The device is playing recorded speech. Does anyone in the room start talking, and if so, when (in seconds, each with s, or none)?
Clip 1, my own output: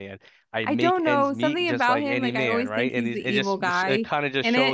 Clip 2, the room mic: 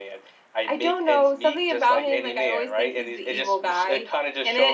none